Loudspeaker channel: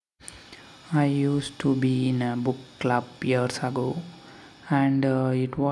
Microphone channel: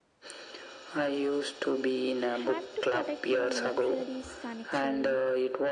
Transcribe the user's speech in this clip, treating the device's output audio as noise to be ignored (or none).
You have to protect your literary sanctuary.